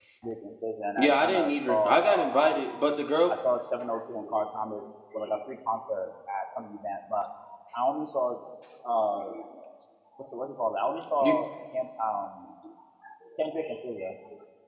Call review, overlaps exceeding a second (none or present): present